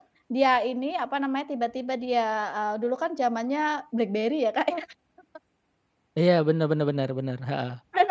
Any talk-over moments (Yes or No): No